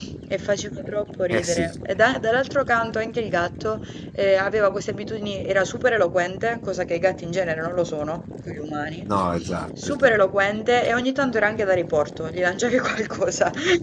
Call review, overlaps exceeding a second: none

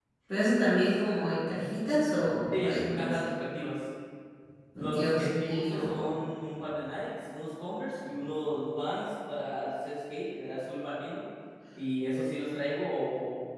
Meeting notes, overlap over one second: present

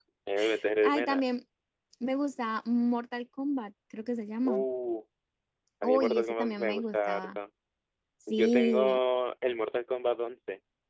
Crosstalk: present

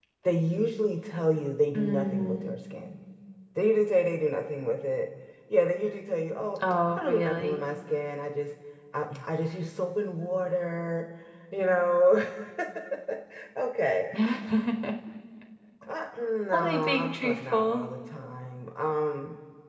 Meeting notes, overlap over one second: present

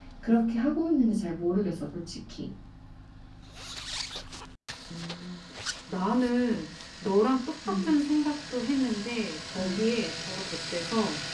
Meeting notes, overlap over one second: none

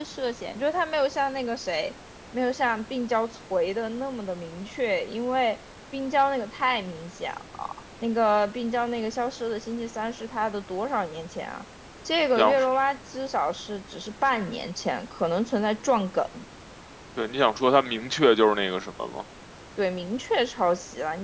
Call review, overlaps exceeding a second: none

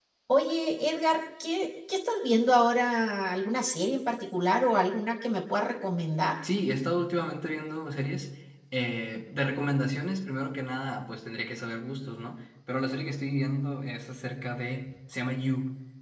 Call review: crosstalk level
none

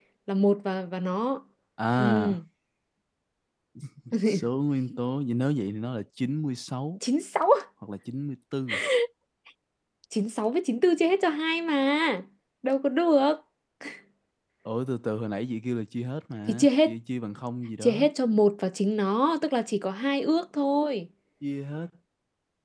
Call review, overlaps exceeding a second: none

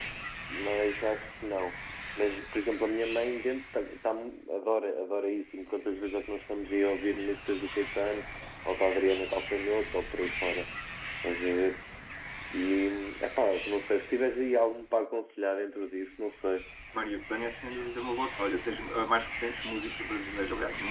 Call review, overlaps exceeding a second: none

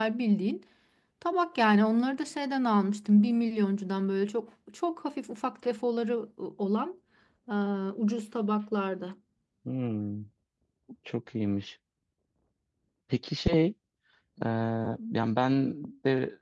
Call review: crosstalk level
none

